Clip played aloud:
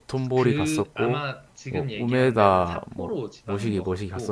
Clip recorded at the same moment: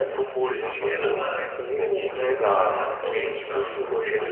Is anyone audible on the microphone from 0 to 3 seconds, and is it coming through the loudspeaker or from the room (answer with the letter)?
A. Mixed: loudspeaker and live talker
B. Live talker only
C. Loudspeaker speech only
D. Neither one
A